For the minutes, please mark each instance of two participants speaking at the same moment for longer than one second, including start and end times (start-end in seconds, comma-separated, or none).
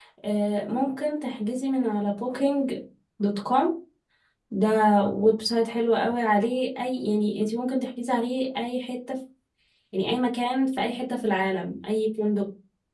none